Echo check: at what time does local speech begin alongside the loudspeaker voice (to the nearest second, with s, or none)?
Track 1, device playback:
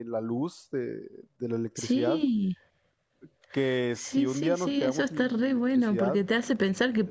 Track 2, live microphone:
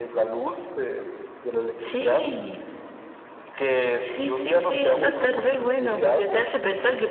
5 s